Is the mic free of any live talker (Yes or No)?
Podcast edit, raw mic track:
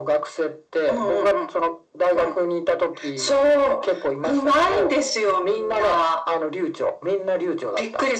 Yes